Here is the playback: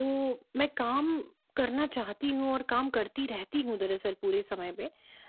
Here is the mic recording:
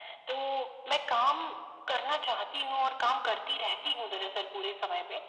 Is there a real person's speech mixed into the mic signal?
No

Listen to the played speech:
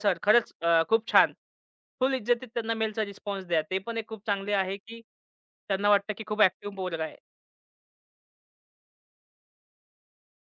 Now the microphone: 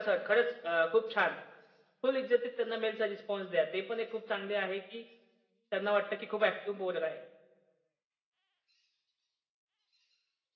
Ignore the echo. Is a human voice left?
No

